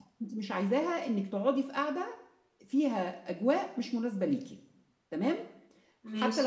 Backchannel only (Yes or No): Yes